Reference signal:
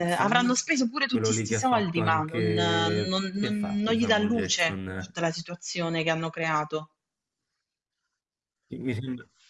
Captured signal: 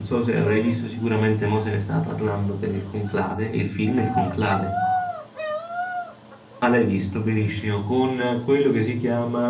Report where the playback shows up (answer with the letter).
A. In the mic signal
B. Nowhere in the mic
B